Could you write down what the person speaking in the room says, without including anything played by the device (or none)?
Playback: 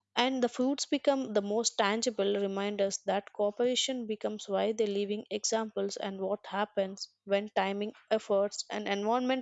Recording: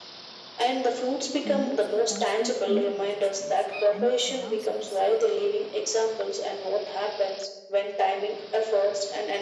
it removes the constant inner resistance and it allows us